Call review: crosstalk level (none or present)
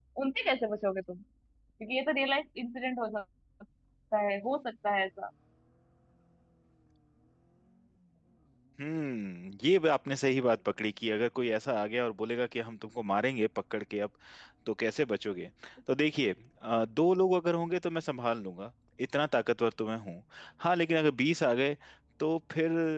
none